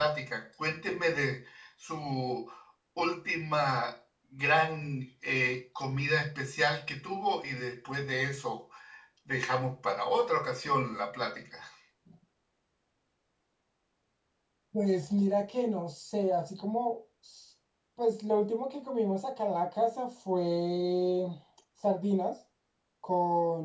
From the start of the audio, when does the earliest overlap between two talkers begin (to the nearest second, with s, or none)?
none